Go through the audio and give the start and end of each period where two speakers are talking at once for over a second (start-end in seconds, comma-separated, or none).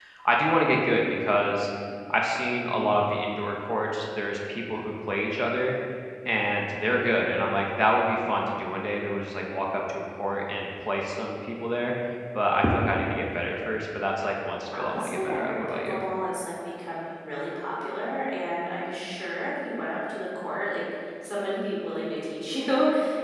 14.8-16.0